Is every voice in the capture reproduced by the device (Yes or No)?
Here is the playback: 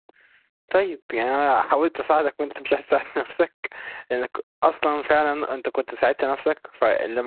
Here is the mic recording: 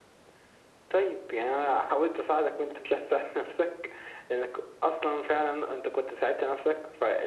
Yes